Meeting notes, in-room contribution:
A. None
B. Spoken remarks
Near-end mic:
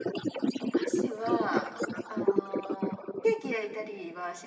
B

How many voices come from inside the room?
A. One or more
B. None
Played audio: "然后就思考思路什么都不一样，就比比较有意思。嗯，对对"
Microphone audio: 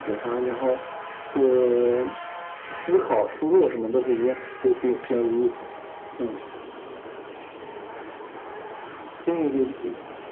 B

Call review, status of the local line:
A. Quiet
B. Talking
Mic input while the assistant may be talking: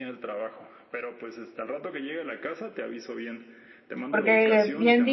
B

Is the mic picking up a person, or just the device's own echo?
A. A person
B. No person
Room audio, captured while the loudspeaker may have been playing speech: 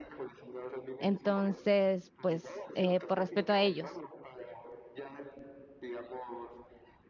A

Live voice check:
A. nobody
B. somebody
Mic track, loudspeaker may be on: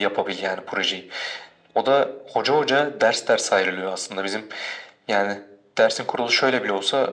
A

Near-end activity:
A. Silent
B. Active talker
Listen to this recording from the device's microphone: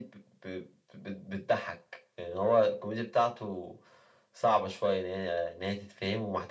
A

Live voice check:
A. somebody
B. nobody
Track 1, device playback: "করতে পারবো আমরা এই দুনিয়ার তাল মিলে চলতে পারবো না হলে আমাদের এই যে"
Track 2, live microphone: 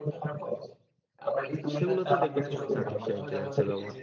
A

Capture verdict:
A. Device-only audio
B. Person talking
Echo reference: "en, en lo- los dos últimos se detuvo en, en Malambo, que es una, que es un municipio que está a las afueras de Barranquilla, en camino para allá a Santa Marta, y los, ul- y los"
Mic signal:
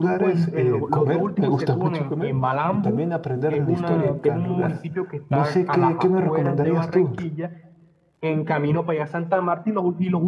B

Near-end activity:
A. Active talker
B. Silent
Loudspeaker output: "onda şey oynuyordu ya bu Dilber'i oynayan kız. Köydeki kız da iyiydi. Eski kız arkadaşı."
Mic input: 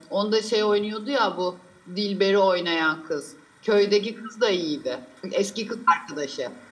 B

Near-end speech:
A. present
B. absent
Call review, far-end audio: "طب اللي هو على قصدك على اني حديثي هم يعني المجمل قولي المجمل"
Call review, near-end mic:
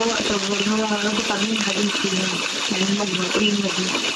B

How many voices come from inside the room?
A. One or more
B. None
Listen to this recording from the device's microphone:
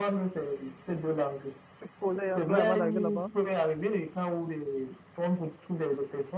A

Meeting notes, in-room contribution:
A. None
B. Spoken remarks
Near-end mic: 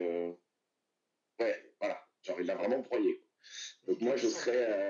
B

